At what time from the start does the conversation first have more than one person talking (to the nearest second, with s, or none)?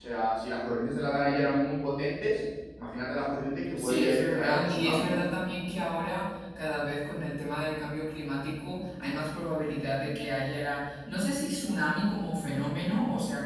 4 s